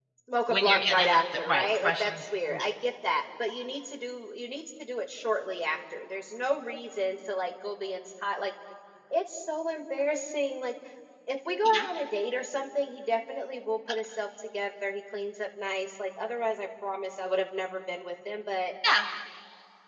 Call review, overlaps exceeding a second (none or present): present